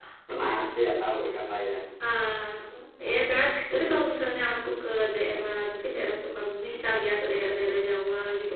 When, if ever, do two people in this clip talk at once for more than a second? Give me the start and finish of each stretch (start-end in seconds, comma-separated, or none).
none